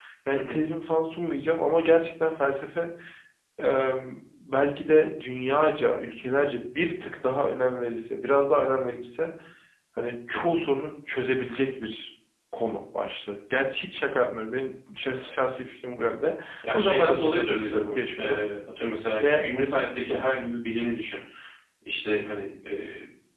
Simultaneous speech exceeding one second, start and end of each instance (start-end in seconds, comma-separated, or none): 16.7-18.4